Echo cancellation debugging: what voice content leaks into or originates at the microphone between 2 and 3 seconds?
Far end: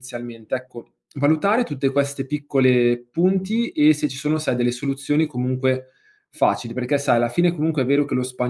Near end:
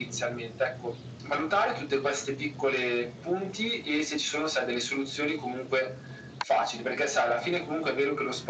echo only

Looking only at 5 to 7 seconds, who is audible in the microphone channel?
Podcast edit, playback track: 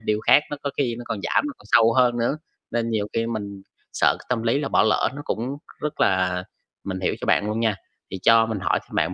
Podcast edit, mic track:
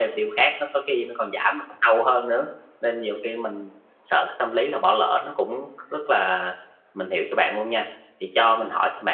echo only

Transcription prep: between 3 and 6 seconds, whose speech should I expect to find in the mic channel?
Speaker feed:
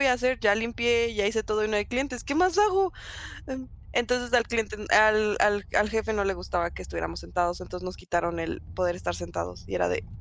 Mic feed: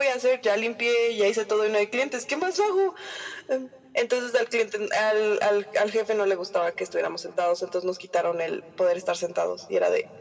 echo only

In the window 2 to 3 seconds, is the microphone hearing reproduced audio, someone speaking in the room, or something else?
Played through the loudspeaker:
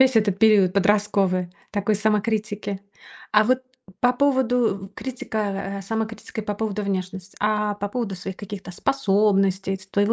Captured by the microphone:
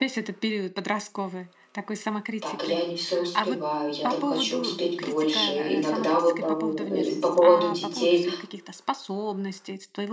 both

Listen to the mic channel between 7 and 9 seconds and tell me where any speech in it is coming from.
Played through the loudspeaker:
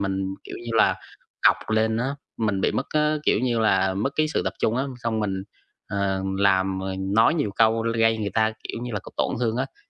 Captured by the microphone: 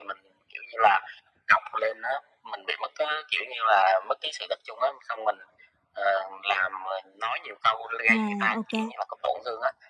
both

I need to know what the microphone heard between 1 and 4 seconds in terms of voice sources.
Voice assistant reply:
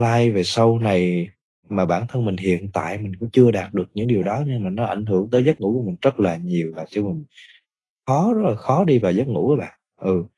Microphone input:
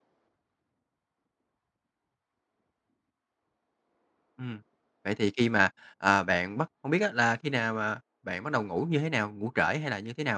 neither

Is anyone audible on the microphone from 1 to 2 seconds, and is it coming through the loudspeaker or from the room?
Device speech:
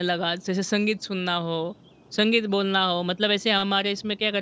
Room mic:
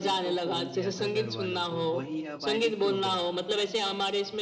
both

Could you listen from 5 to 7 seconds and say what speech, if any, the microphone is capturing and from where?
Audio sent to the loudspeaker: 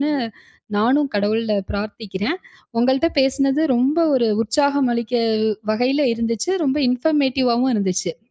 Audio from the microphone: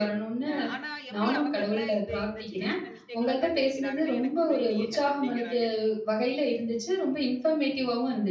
both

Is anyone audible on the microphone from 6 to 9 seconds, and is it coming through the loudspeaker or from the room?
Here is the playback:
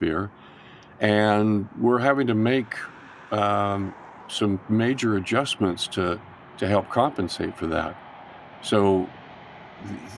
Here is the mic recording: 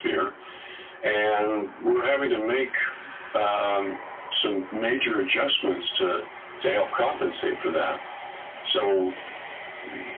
echo only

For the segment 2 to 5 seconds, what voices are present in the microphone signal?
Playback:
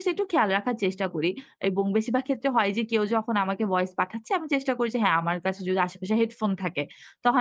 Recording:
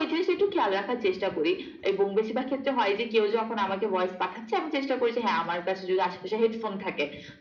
echo only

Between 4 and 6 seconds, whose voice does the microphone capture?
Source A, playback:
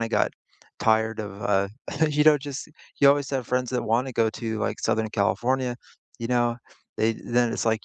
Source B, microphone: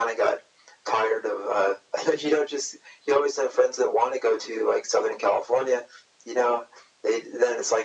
echo only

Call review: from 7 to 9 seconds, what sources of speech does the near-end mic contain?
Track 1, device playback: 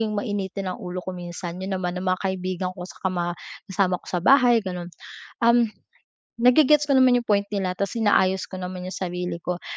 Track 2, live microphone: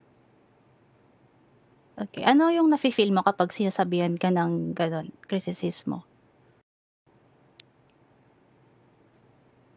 neither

